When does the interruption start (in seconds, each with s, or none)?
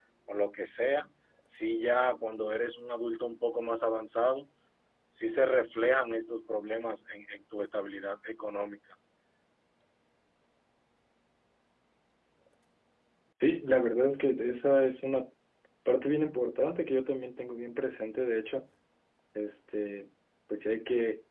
none